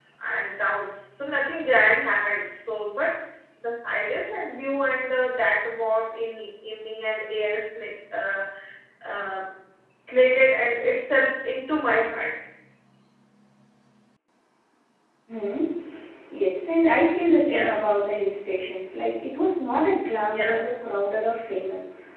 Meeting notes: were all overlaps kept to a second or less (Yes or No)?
Yes